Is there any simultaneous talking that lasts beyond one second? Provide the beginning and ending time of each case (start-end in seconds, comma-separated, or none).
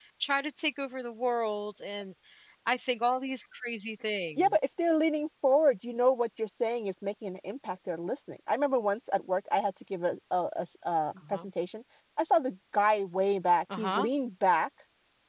none